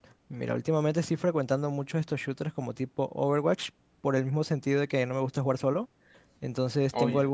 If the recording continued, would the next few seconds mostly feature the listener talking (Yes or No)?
No